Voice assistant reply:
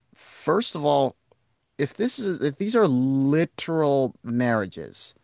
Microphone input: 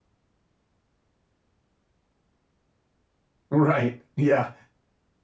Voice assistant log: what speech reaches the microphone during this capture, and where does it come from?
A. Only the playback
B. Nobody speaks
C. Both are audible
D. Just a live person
D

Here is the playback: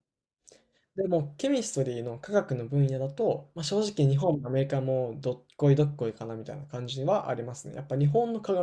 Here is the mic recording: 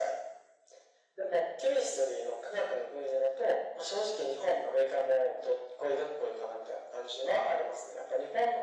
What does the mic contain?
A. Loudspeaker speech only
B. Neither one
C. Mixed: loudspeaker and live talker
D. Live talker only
A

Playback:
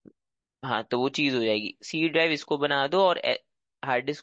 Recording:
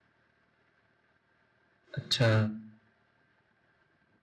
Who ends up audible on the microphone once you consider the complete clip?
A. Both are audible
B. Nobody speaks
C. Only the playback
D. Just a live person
D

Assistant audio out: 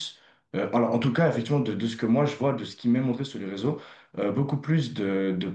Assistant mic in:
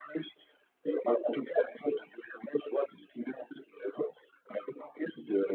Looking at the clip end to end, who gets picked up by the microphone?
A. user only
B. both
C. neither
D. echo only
D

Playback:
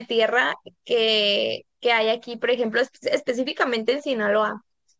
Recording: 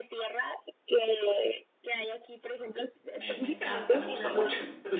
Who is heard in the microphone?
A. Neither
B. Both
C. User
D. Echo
B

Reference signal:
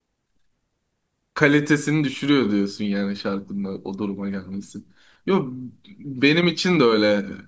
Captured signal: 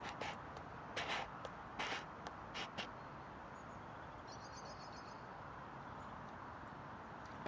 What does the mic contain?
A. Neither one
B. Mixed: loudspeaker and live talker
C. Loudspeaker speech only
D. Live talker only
A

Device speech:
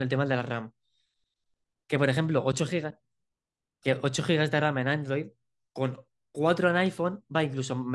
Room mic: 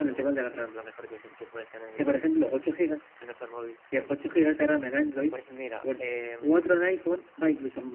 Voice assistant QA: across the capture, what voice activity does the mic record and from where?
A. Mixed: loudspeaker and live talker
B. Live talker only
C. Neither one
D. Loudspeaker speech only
A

